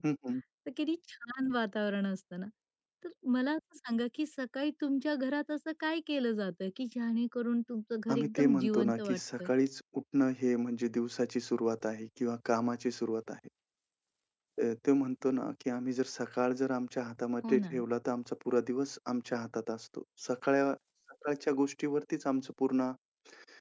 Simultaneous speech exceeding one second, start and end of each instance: 8.1-9.5

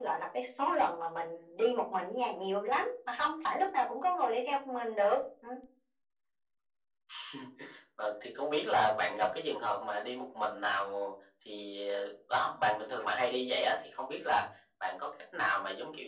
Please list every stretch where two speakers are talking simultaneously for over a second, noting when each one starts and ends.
none

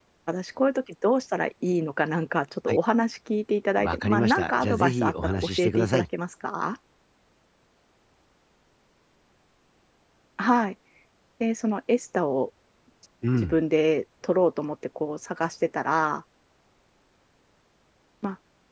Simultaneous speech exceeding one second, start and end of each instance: 3.8-6.0

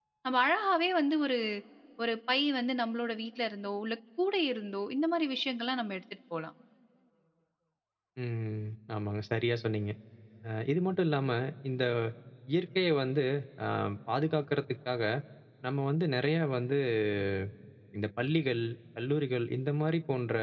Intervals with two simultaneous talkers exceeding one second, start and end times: none

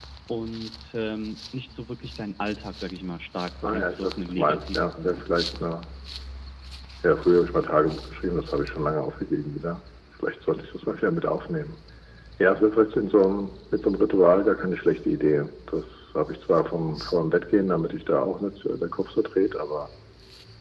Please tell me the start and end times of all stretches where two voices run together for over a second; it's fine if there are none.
3.6-5.3

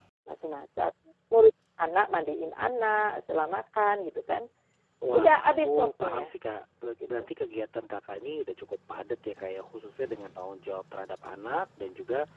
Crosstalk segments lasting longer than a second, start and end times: 5.1-6.3

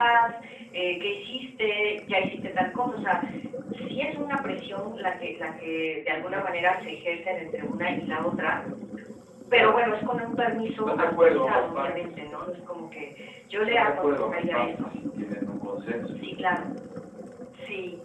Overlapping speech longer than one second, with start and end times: 10.7-12.1, 13.5-14.9

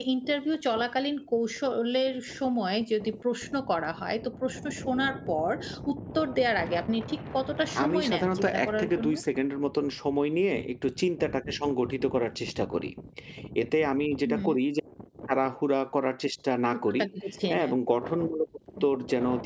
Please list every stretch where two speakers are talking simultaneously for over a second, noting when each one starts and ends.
7.8-9.1

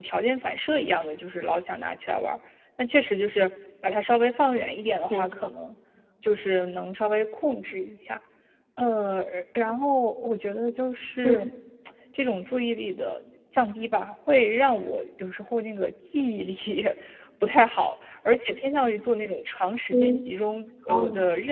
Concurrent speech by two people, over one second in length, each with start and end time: none

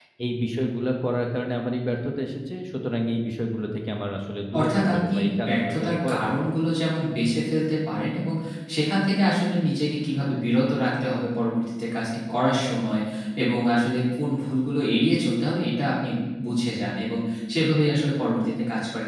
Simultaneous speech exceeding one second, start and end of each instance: 4.6-6.5

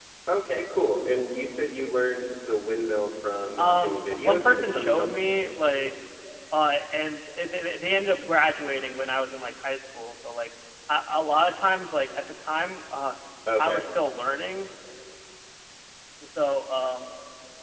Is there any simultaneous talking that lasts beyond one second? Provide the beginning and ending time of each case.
3.6-5.5

